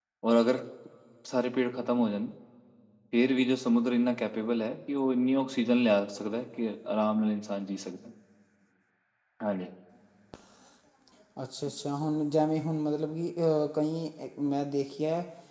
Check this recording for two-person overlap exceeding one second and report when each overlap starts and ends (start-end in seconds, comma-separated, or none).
none